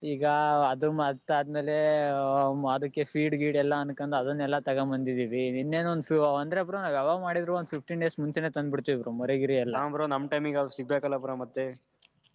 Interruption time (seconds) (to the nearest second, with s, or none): none